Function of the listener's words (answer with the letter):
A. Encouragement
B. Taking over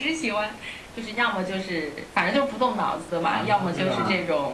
A